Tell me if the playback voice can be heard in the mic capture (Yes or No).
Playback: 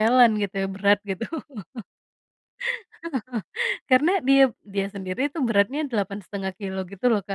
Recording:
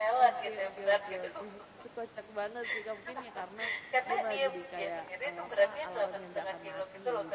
Yes